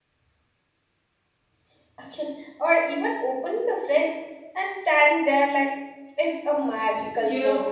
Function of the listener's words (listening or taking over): taking over